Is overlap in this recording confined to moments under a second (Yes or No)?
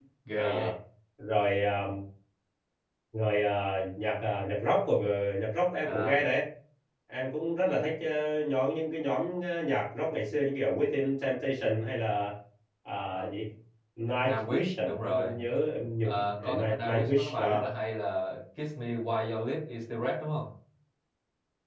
No